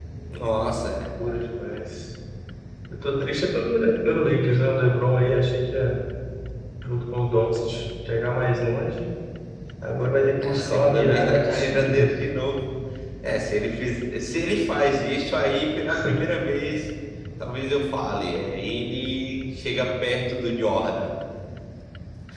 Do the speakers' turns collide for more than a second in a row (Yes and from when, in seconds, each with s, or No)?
Yes, from 10.4 s